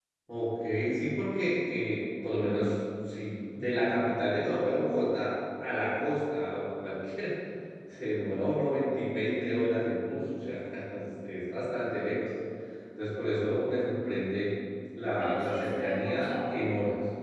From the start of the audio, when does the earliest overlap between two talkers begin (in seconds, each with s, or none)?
15.2 s